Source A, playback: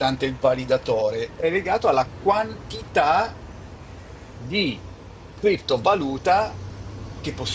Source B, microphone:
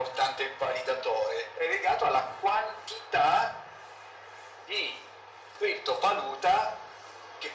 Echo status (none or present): present